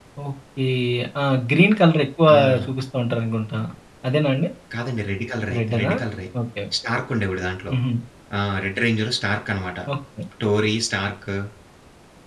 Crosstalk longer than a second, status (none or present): none